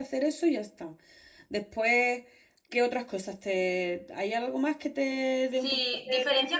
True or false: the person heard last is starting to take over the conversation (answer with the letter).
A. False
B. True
B